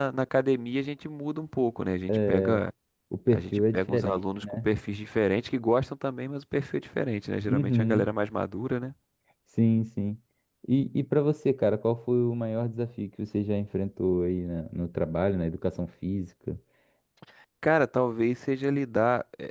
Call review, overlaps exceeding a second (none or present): present